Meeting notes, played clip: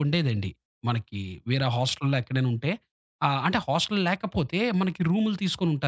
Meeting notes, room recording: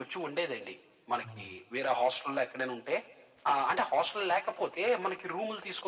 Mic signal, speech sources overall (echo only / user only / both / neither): both